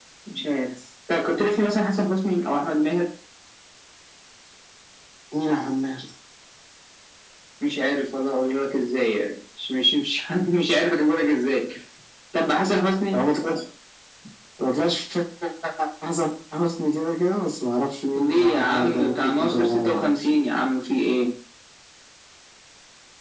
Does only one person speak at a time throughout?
No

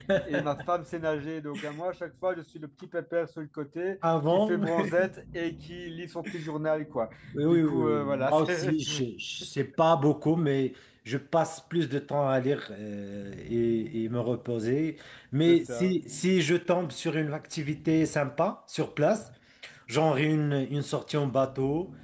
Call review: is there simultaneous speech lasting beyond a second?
Yes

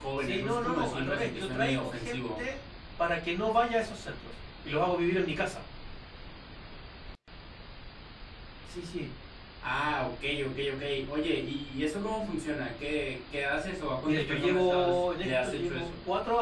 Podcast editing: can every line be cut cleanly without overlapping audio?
No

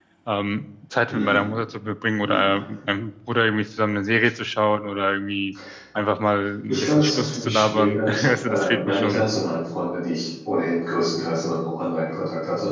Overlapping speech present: Yes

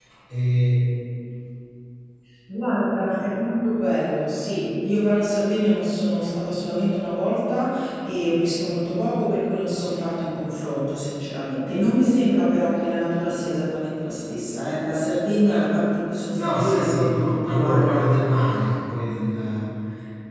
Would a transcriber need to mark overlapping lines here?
Yes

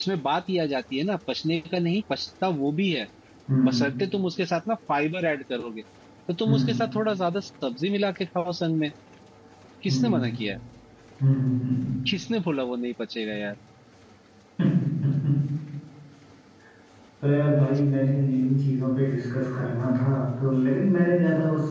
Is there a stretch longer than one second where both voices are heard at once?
No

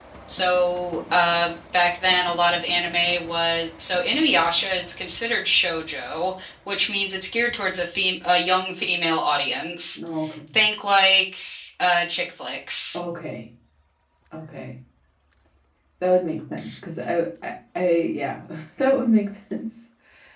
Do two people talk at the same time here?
No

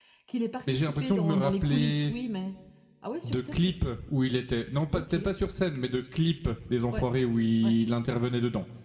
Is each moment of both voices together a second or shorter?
No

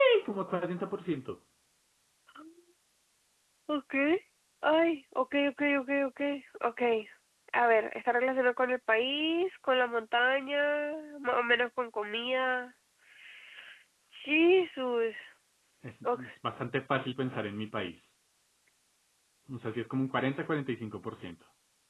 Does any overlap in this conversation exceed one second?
No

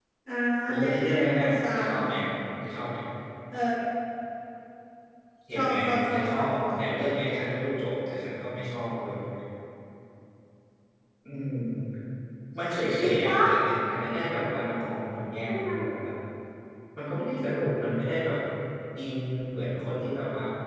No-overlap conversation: No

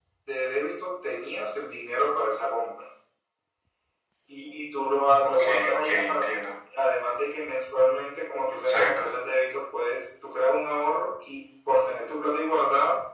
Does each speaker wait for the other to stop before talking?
No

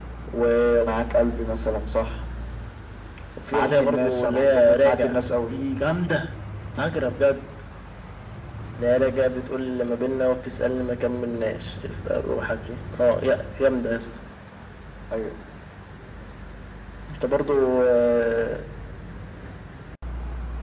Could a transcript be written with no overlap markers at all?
No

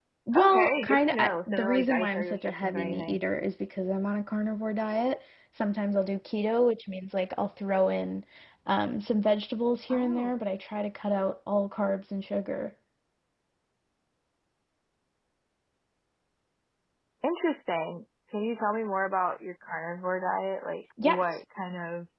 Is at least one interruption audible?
Yes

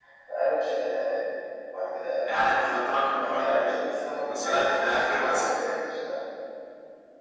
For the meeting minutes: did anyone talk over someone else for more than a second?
Yes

